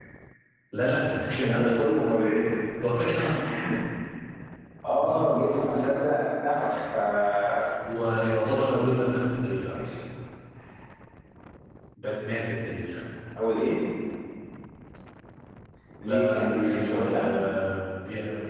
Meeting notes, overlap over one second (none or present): present